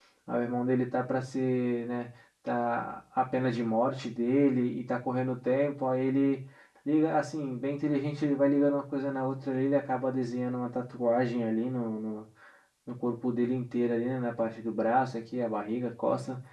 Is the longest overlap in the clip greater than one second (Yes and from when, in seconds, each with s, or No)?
No